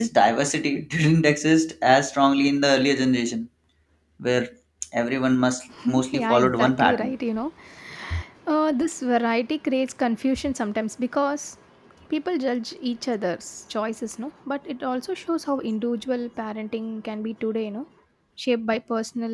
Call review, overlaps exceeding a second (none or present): present